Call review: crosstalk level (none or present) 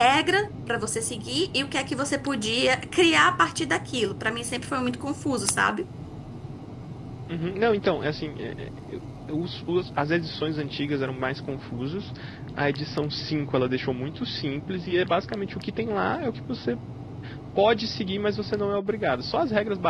none